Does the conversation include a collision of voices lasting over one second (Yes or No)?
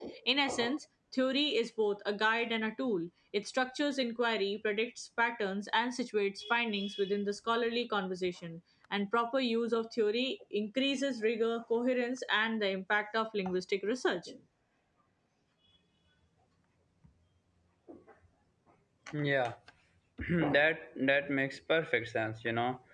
No